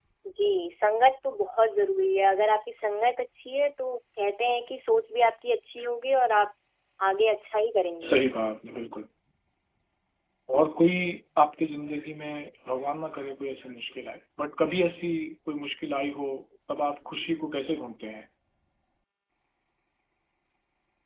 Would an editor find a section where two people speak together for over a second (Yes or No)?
No